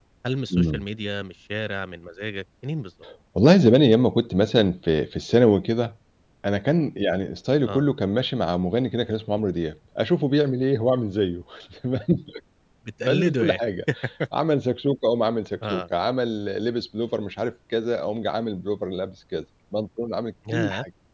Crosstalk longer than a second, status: none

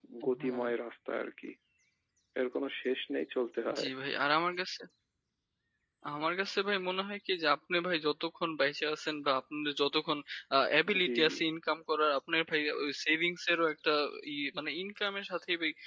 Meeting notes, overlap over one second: none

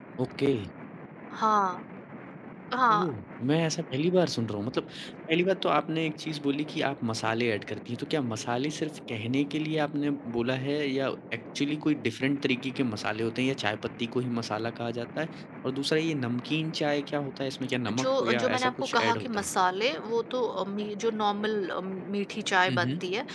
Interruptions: present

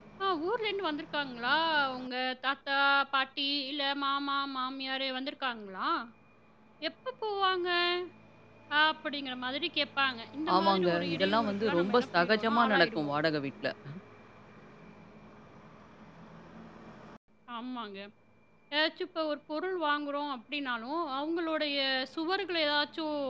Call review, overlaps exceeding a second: present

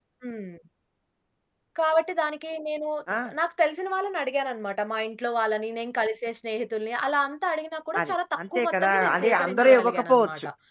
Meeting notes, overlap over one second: present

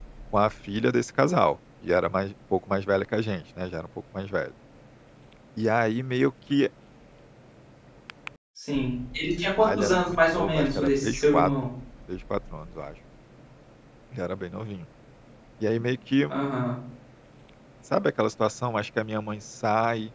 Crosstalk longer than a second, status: present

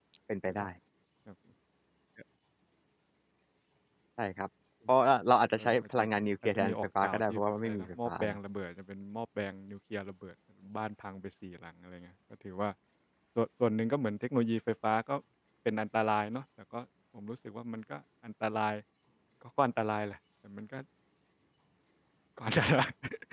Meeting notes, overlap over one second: present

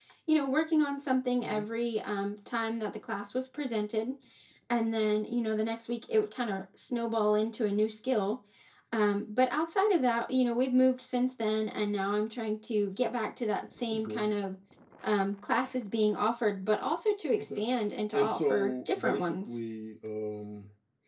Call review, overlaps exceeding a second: present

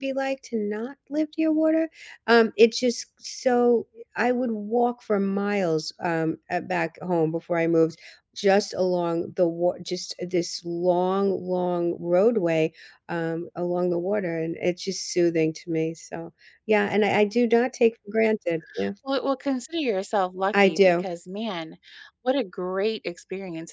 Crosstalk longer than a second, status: none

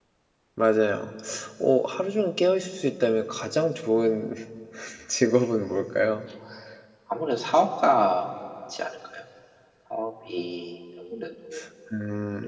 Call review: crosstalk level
none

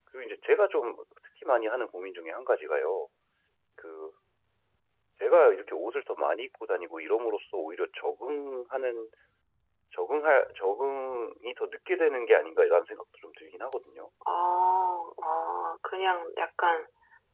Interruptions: none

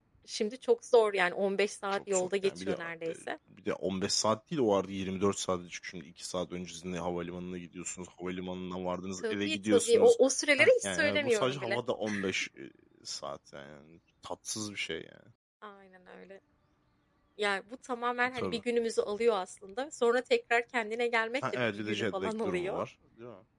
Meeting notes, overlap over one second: present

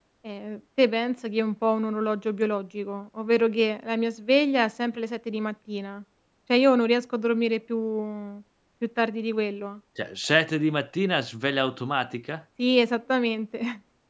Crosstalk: none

